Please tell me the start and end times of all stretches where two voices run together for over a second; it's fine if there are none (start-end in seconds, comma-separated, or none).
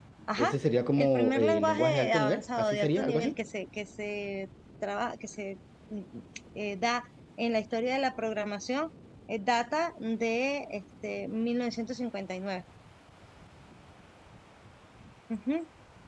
1.0-3.3